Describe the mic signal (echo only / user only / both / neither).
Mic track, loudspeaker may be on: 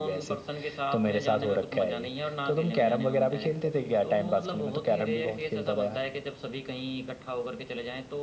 echo only